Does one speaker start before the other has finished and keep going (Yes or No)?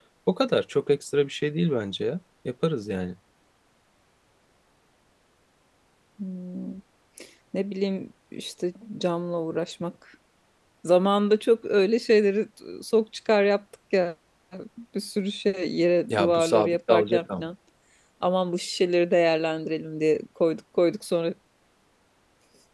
Yes